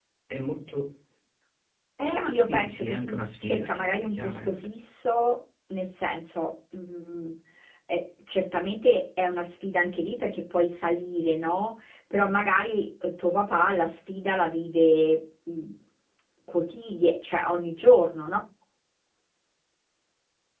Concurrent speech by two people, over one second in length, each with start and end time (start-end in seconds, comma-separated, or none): 2.1-4.6